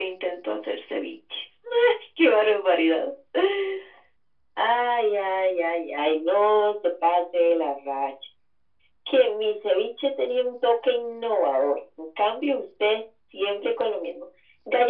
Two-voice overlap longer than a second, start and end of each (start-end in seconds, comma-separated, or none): none